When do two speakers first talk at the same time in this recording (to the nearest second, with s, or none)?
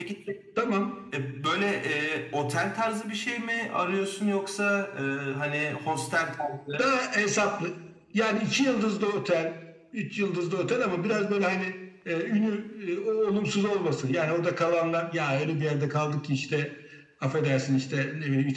none